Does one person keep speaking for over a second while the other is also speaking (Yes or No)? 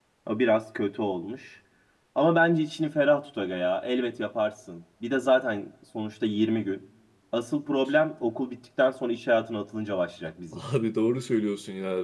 No